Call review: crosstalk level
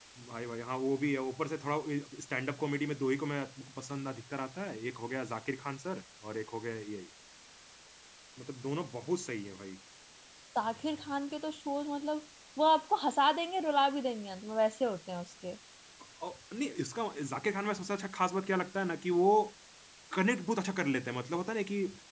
none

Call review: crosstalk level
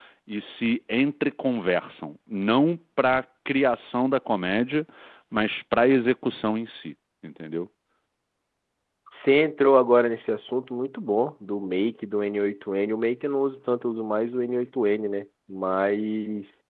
none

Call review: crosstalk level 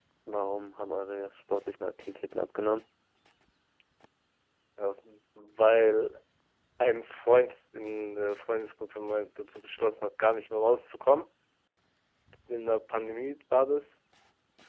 none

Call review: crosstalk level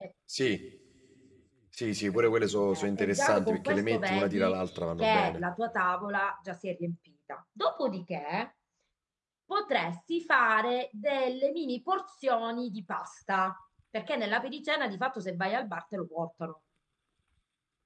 present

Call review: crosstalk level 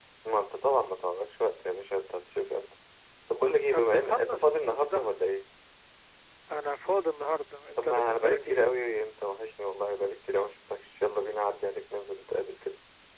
present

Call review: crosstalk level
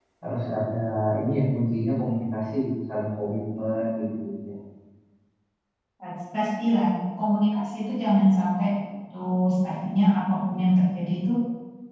none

